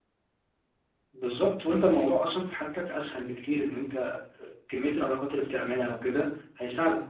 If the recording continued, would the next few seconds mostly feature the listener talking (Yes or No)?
Yes